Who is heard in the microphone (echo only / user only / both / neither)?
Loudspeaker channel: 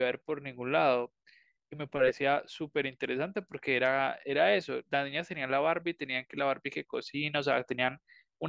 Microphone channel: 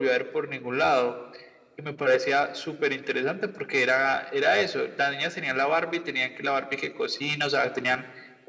echo only